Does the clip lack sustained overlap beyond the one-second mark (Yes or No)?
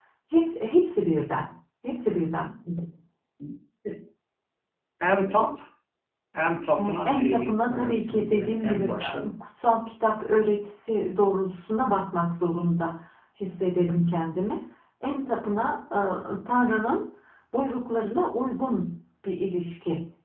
No